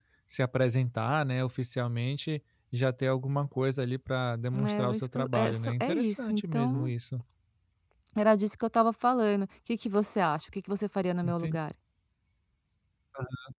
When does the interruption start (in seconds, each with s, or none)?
4.5 s